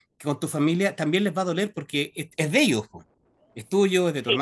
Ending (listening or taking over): listening